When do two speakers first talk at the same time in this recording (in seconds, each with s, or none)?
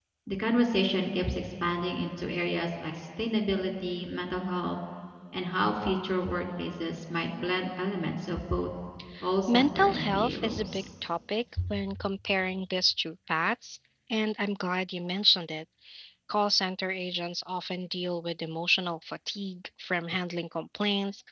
9.5 s